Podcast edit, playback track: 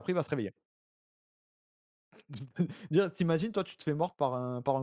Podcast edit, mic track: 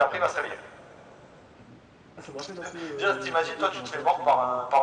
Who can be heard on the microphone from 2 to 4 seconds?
both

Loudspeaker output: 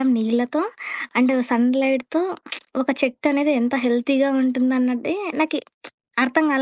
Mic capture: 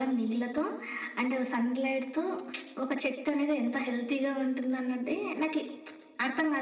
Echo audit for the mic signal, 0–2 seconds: echo only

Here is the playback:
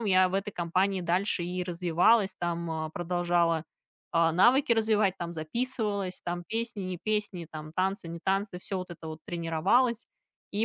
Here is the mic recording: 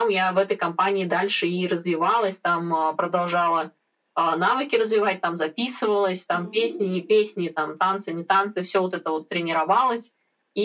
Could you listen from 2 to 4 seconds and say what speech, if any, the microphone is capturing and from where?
echo only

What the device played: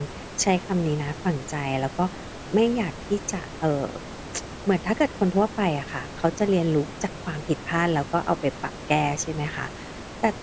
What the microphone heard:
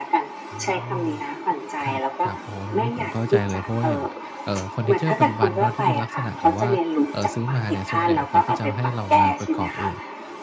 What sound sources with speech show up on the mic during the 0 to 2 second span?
both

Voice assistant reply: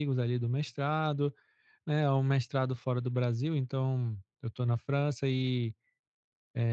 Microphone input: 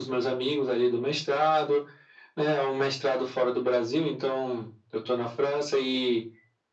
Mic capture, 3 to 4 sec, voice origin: echo only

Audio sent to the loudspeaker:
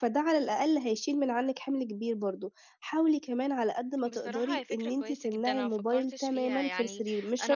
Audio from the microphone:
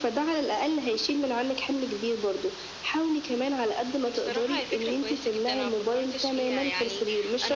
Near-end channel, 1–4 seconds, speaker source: echo only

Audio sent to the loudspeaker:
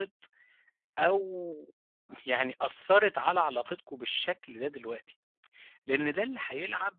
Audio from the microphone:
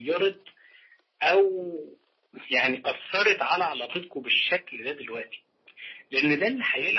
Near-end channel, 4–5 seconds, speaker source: echo only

